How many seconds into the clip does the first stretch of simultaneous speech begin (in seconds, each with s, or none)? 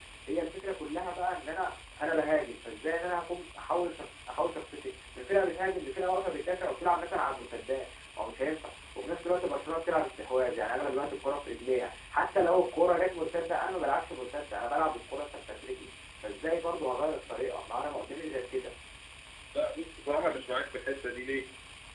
none